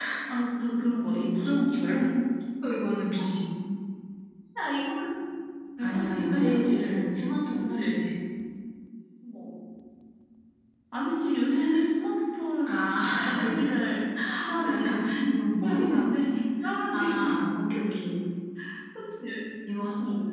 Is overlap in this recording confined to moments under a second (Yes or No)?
No